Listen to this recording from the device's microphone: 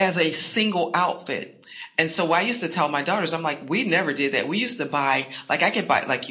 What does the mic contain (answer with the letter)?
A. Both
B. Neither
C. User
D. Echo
D